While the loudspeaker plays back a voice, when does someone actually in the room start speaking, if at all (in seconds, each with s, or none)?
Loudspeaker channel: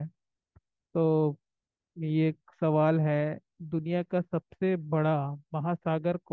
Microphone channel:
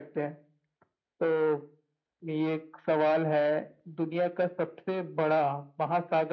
none